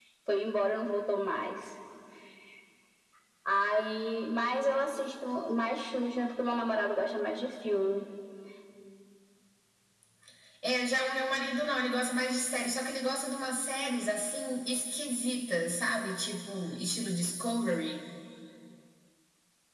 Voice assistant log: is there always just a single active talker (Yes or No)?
Yes